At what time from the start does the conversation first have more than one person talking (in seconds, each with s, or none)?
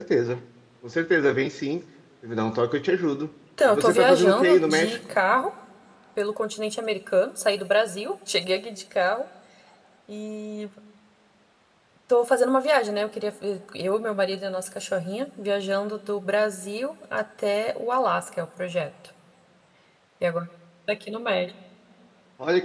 3.6 s